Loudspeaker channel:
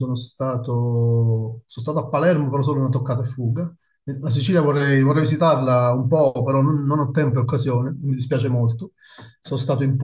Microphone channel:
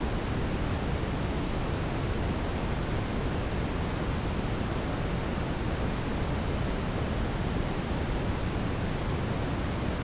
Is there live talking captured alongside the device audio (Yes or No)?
No